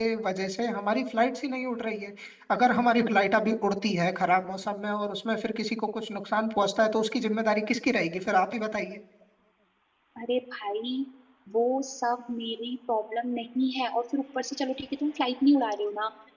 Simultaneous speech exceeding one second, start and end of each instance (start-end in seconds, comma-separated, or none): none